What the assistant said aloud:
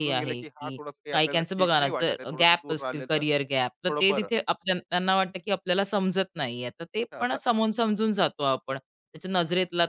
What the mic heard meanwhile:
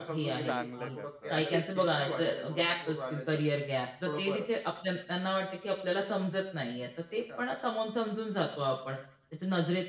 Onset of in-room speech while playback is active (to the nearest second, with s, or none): 0 s